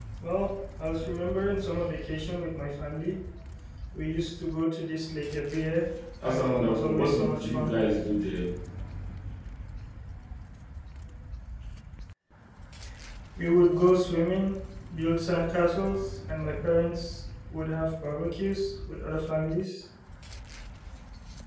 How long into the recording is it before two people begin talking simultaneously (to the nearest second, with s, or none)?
6 s